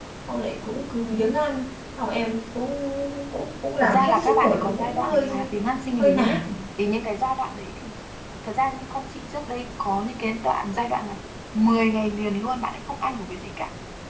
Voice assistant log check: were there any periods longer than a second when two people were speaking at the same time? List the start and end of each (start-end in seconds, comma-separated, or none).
3.8-5.3